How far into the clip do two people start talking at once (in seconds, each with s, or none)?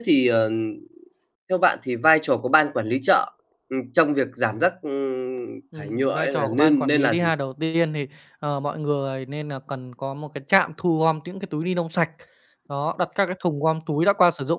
5.7 s